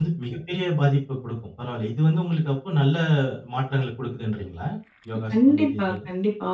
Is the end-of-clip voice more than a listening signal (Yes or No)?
Yes